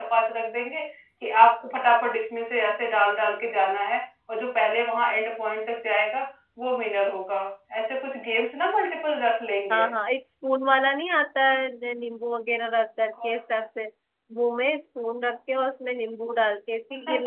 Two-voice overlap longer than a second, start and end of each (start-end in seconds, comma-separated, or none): none